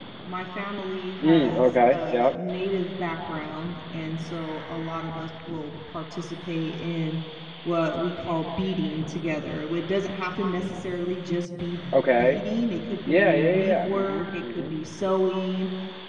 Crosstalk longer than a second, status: present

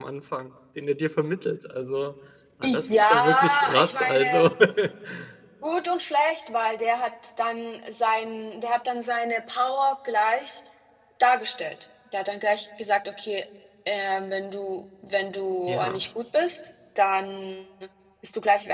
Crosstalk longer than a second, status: present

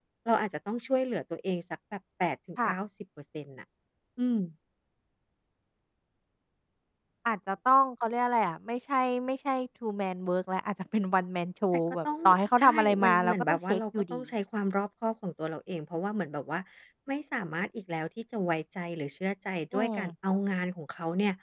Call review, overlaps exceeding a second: present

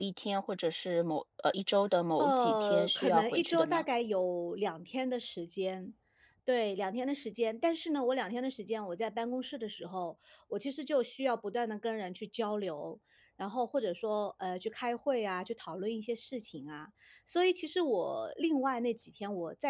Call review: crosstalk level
present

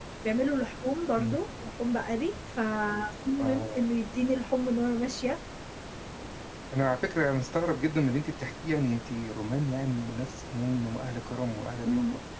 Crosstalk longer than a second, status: none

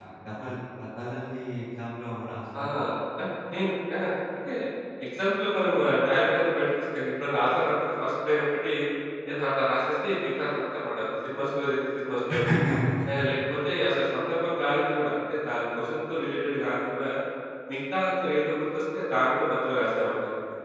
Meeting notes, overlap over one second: none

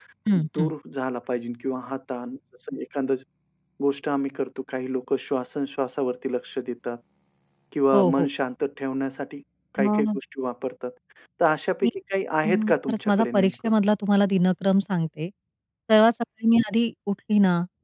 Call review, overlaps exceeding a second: present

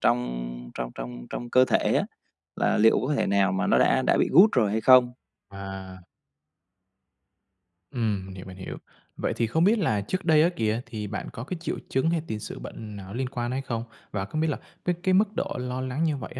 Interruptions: none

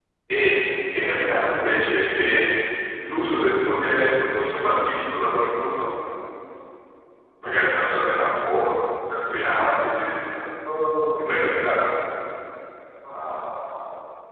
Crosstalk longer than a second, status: none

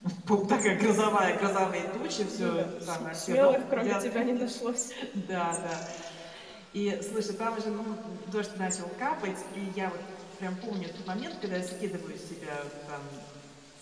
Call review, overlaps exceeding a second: present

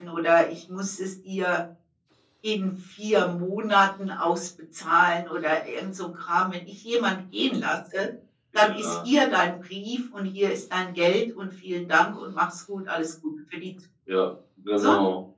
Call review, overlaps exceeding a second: none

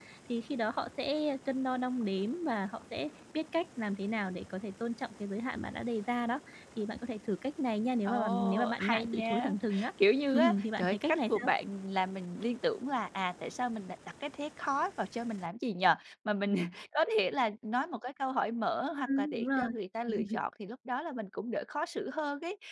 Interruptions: present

